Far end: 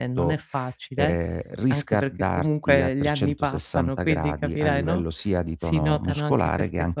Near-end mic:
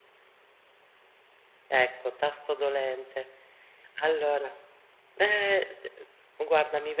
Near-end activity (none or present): present